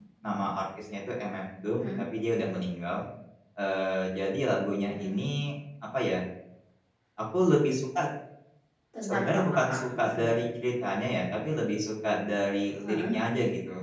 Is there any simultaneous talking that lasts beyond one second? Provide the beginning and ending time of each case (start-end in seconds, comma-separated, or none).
9.0-10.4